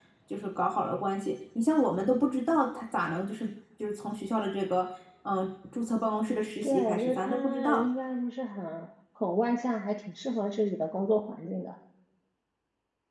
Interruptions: present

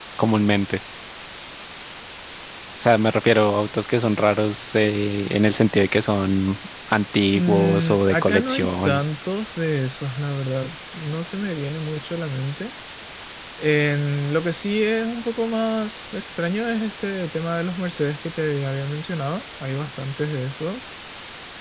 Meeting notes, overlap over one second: present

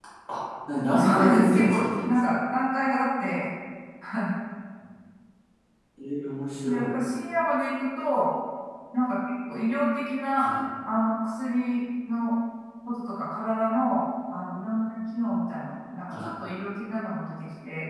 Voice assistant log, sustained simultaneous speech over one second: present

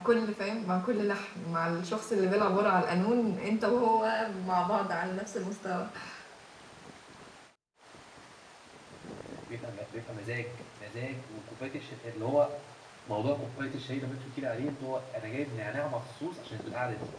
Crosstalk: none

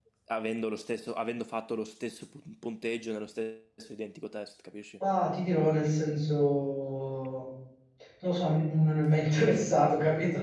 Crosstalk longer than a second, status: none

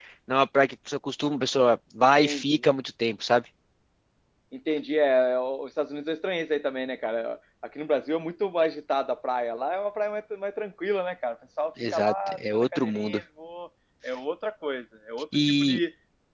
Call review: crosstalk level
present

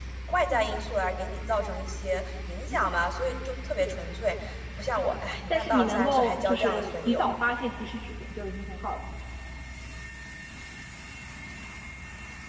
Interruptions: present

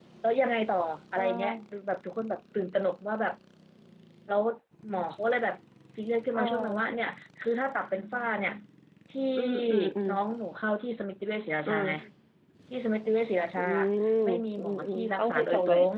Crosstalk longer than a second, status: present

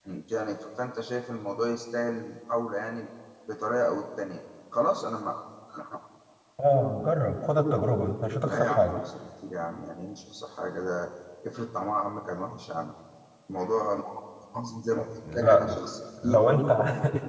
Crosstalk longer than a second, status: none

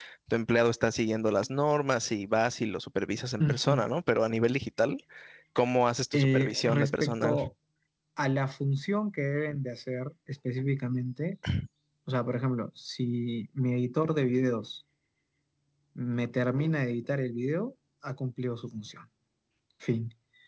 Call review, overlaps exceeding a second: present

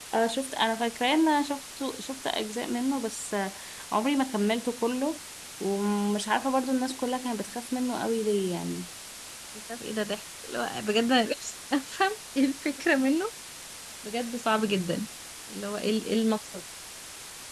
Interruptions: none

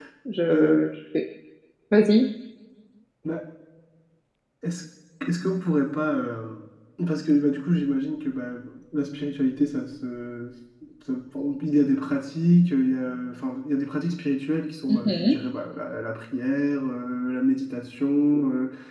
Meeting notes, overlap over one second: none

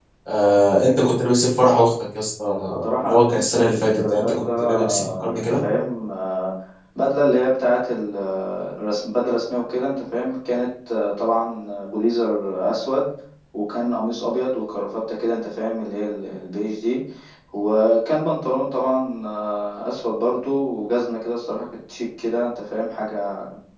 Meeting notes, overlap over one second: present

